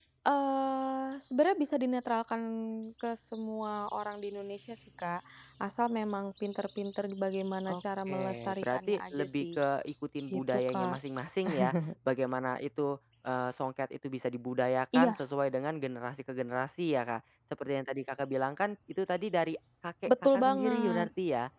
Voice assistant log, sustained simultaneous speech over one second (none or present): present